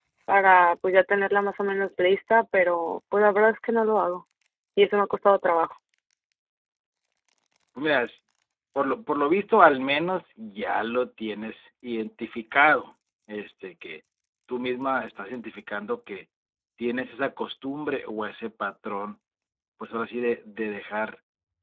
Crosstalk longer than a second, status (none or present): none